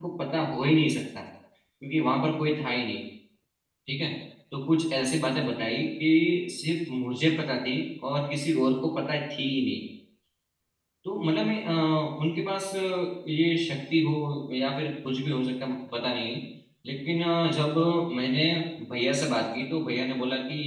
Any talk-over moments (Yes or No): No